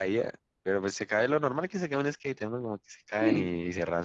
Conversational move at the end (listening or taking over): listening